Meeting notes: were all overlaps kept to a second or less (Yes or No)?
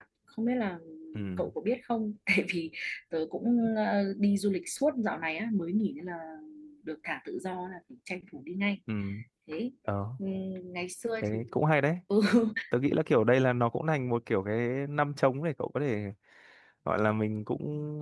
Yes